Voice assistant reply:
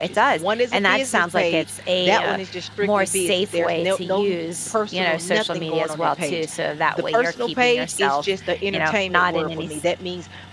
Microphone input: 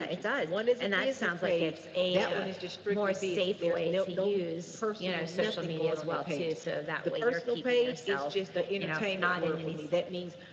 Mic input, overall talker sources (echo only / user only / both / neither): echo only